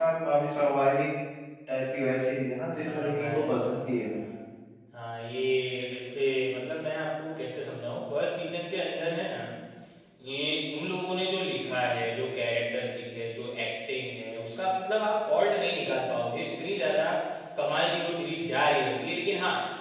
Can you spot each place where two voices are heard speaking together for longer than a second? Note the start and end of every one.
2.9-4.1

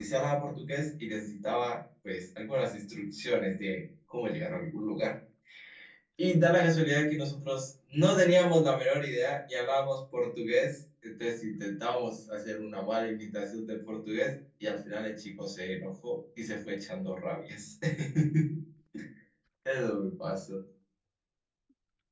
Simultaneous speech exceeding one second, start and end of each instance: none

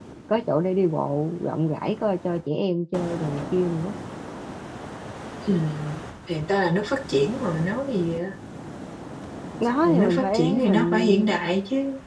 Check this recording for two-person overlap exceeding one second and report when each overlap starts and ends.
9.8-11.5

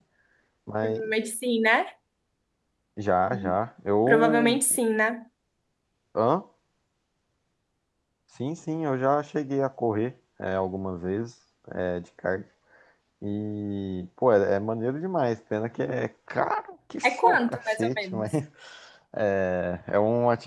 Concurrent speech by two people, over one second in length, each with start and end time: 17.0-18.2

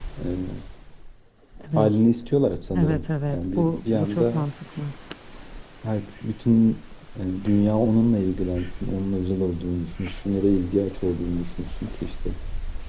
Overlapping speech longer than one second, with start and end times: 2.8-4.4

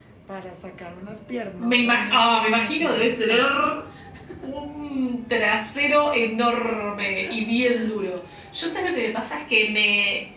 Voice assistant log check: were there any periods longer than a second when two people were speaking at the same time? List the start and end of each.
1.6-3.5

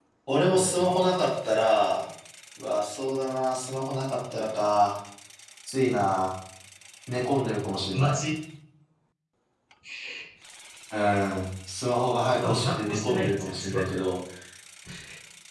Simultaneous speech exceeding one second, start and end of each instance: 12.2-13.9

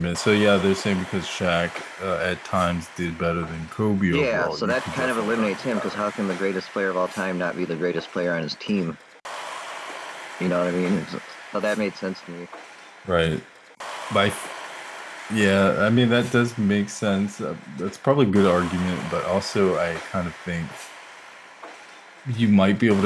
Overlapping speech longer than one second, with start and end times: 4.0-6.0

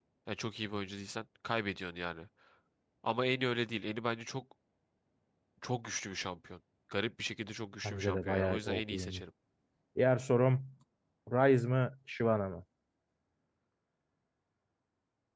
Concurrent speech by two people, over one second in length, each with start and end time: 7.8-9.2

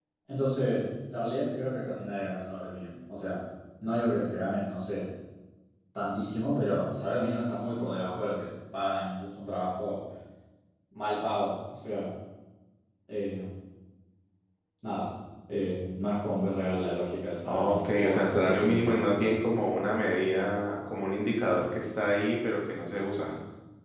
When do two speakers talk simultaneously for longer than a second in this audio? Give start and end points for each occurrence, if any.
17.5-19.2

